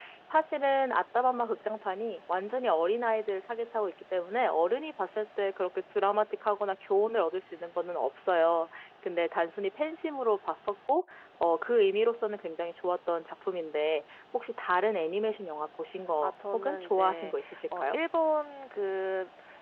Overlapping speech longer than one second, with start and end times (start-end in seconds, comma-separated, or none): 16.2-18.0